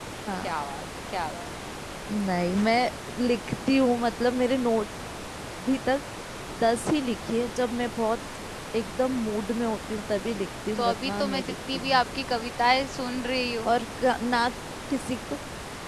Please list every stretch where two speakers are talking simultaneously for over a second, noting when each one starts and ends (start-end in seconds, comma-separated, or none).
10.8-12.0